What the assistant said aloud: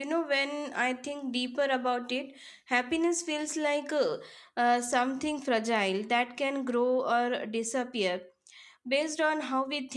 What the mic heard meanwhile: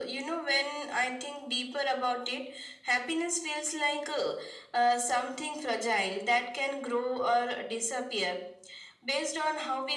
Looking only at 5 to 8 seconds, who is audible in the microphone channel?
echo only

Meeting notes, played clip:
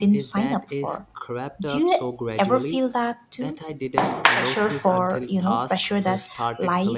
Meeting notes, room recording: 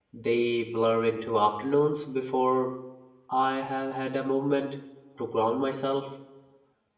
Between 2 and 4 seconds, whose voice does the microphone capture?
user only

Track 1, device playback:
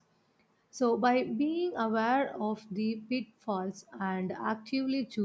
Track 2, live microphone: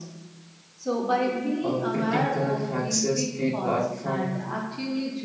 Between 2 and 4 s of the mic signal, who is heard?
both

